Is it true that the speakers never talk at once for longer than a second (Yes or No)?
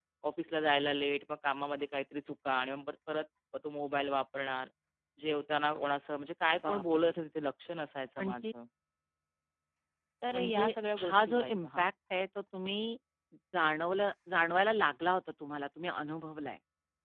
No